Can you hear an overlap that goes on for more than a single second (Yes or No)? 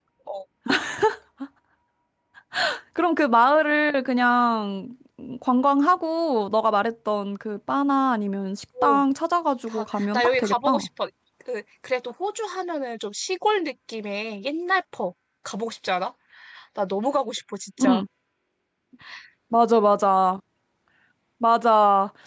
Yes